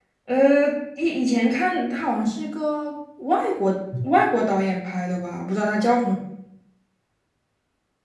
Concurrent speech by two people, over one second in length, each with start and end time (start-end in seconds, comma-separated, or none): none